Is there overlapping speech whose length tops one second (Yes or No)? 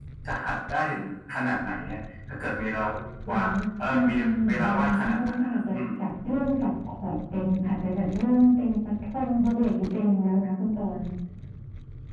Yes